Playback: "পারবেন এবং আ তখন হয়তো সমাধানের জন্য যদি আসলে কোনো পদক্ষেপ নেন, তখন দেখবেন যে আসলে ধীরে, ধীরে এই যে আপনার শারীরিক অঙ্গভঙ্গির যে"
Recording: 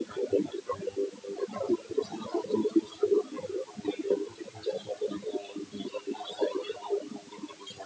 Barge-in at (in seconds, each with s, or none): none